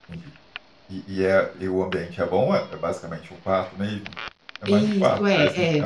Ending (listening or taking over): taking over